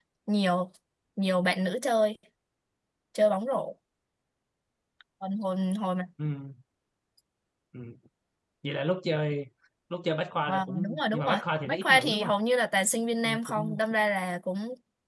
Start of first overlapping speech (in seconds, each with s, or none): 10.5 s